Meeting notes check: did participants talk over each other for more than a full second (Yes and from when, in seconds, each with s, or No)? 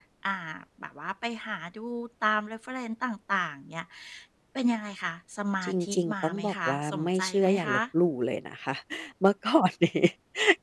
Yes, from 5.6 s